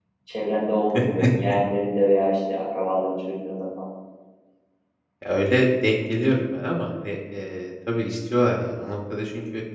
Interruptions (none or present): none